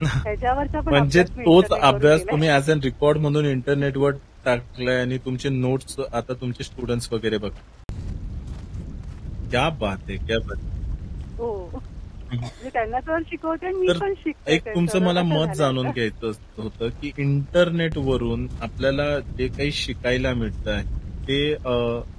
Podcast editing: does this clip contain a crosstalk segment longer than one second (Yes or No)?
Yes